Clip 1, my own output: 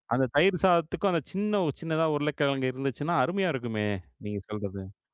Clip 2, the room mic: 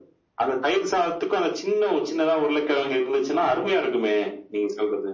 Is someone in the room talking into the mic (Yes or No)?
No